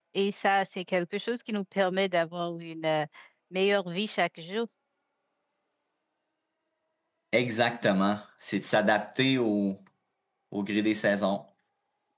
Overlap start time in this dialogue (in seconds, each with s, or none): none